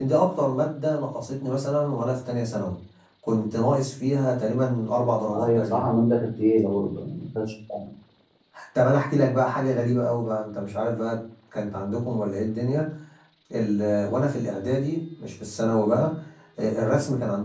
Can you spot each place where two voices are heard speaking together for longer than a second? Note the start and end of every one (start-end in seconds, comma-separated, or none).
none